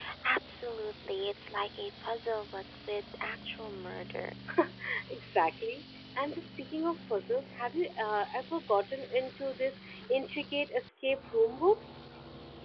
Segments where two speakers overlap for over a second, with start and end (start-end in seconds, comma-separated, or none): none